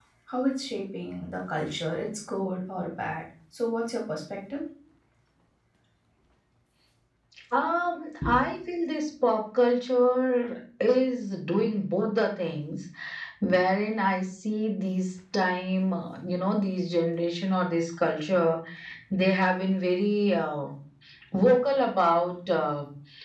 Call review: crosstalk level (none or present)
none